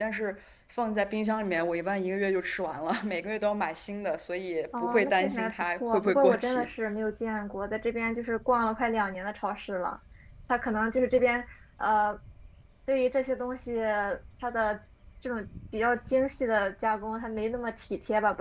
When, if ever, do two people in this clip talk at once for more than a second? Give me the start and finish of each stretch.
4.8-6.7

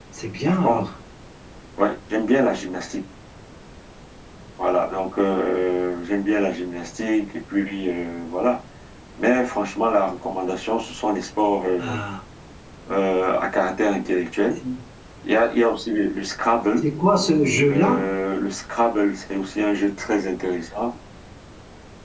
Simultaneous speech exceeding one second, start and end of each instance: none

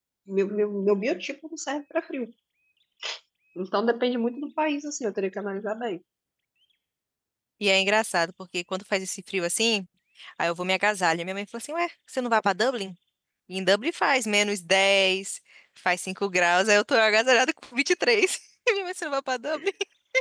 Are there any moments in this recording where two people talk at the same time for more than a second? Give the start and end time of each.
none

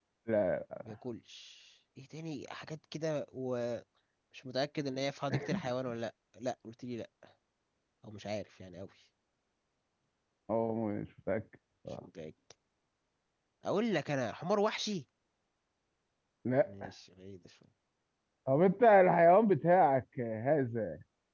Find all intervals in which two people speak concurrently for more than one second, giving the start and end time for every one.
none

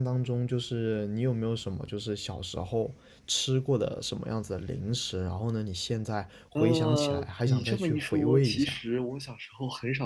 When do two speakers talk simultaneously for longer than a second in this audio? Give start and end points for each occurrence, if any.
6.5-8.8

